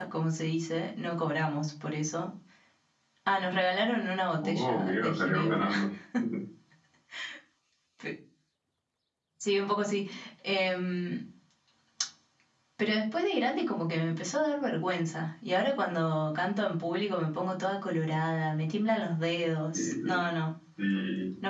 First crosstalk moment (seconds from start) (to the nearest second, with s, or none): 4 s